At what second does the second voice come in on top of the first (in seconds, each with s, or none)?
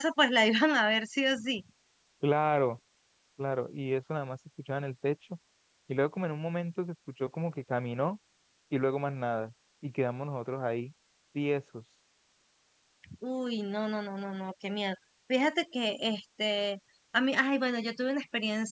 none